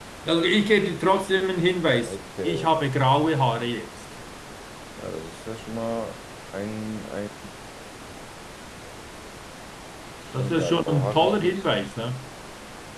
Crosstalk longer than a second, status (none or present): present